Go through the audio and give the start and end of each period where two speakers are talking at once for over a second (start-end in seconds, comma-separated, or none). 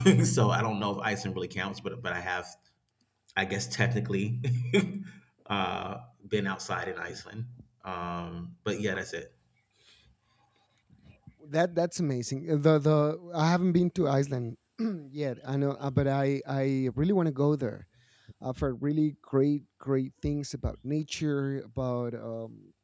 none